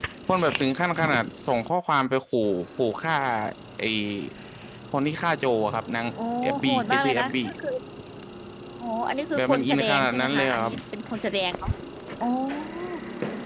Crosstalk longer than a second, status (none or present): present